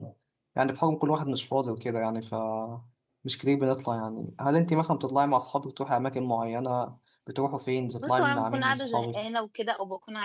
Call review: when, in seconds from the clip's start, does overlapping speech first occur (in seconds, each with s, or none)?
8.0 s